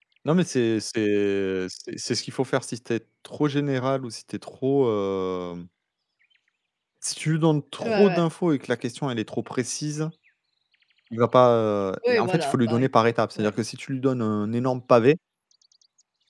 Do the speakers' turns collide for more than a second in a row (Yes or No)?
Yes